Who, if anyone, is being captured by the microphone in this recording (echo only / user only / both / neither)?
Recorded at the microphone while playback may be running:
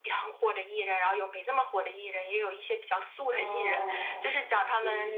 both